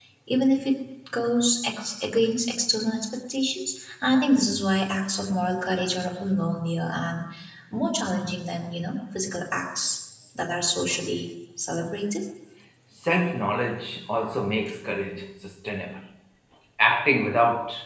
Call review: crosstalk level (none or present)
none